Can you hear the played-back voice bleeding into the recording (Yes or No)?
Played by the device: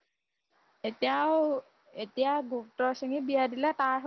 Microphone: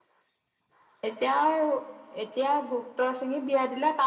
Yes